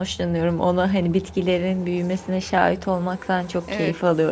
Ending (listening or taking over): taking over